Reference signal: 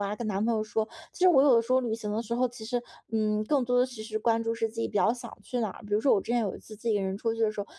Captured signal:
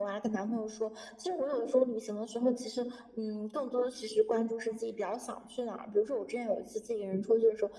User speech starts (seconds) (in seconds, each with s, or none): none